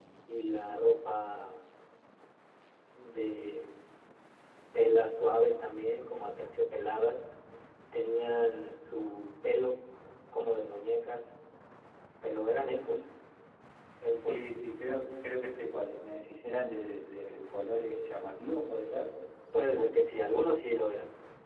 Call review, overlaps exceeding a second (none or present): none